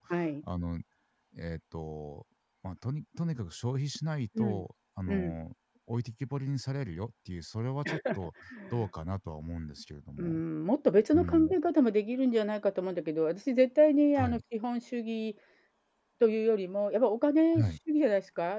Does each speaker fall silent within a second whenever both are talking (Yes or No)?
Yes